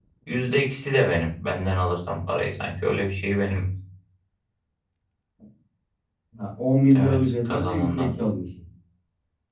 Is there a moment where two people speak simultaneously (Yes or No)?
Yes